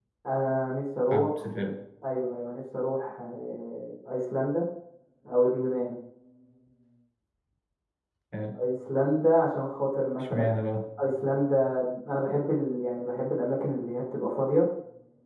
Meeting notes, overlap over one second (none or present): none